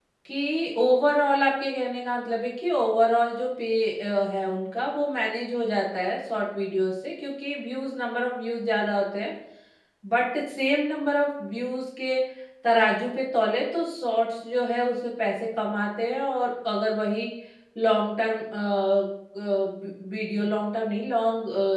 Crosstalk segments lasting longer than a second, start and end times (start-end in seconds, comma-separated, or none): none